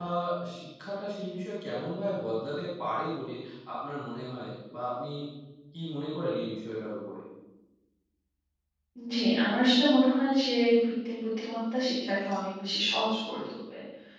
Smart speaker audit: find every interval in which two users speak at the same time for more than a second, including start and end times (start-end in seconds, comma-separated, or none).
none